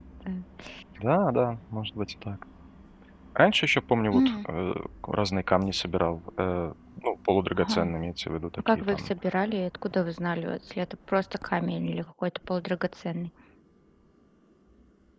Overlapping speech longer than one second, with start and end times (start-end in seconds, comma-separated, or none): none